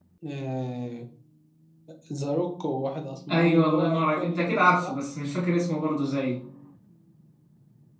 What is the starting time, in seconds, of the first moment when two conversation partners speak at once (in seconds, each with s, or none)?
3.3 s